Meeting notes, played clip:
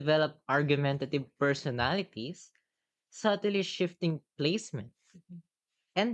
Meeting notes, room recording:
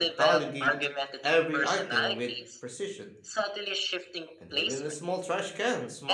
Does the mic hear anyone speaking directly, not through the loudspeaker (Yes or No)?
Yes